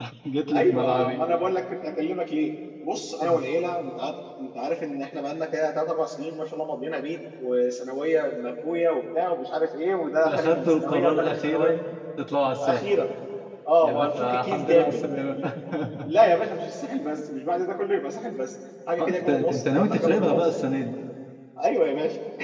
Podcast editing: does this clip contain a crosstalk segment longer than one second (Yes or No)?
Yes